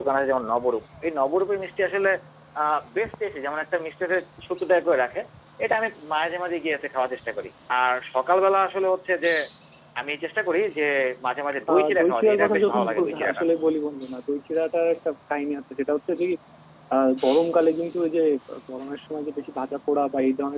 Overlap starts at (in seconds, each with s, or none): 11.7 s